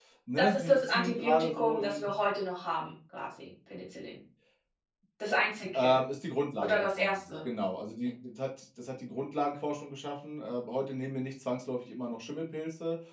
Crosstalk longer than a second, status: present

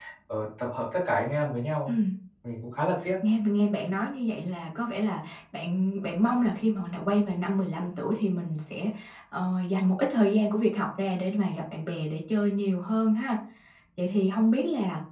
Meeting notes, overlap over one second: none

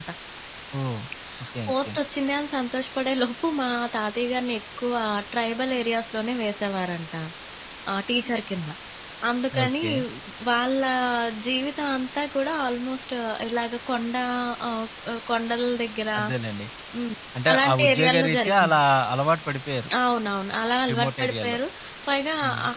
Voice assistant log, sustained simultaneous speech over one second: present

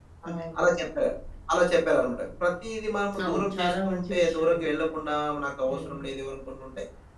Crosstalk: present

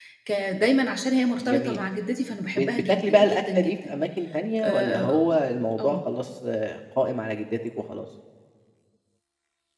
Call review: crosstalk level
present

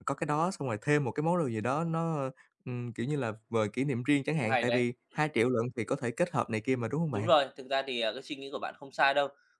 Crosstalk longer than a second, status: none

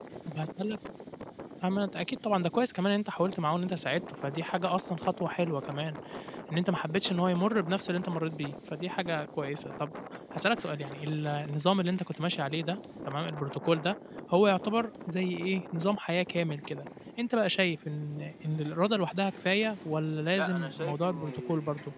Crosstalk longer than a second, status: present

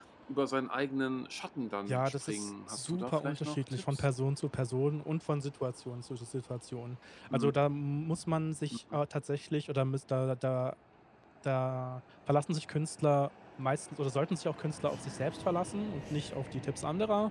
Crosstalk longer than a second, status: present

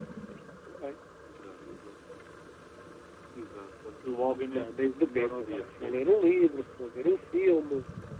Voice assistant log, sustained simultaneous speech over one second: present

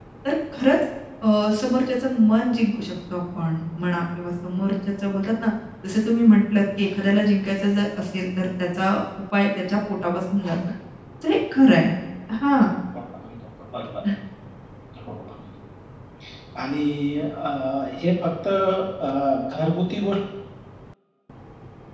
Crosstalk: none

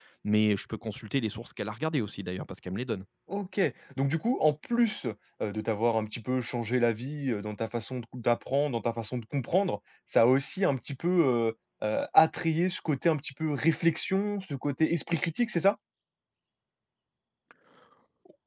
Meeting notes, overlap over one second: none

